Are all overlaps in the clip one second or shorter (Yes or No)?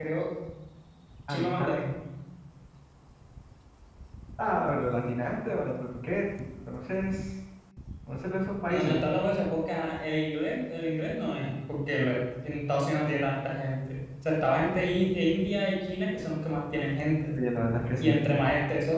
Yes